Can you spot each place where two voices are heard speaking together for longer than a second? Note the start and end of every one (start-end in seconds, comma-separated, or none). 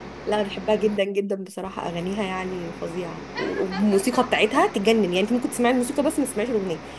none